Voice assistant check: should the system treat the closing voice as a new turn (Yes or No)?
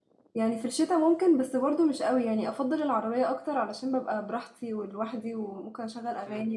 No